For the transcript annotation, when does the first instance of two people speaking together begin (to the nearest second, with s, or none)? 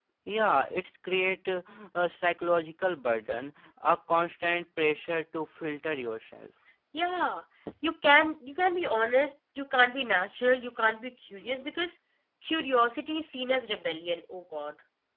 none